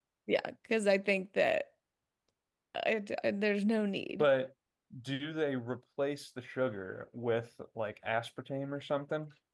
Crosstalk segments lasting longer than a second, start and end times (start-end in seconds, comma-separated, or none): none